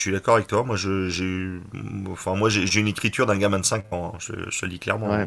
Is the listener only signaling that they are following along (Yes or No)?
No